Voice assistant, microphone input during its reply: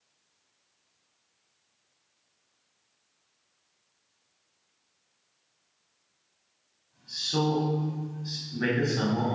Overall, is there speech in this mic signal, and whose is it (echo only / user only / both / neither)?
user only